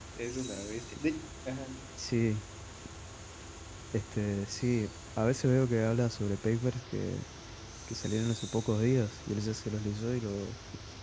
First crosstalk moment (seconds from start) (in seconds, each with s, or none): none